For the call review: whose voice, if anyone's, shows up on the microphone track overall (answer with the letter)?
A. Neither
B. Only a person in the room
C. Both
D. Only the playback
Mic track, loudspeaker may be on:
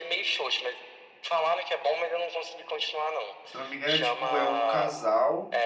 C